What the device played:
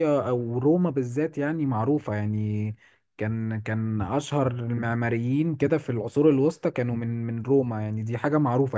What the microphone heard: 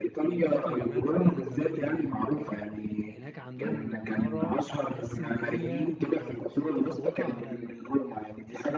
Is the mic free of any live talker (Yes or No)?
No